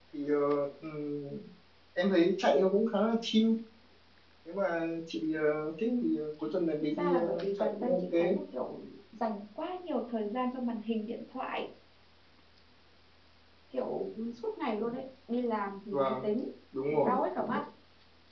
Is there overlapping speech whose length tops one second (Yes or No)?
Yes